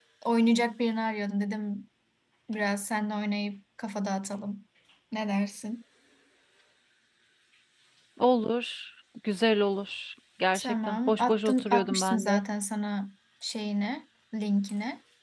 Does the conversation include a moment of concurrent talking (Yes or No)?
Yes